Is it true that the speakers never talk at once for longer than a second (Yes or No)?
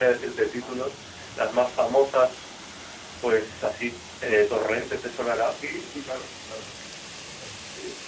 Yes